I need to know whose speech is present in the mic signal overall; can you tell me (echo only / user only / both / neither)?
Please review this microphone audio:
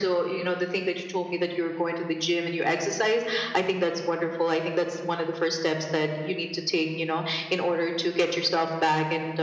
echo only